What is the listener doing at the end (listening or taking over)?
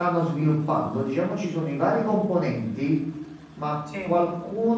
listening